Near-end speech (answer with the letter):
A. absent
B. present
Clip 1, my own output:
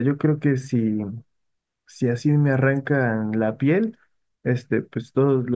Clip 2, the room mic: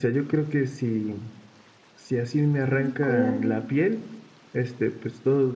B